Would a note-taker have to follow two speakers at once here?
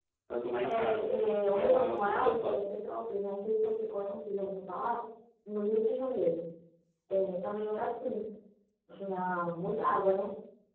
Yes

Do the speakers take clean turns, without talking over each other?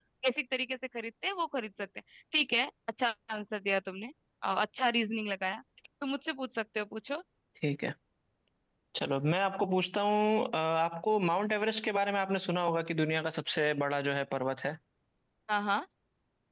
Yes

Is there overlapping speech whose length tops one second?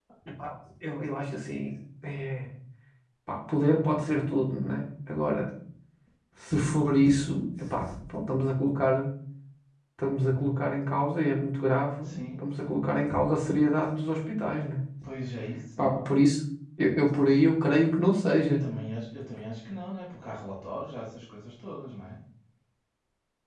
No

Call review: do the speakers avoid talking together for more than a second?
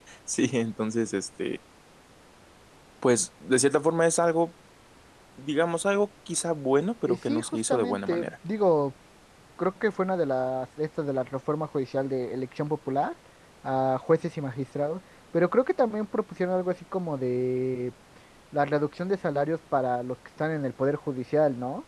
No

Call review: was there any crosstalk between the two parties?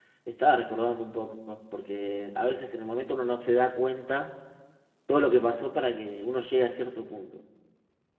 No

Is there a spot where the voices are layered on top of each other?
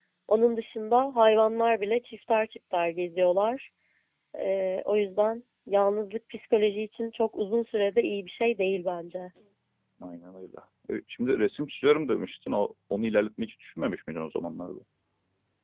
No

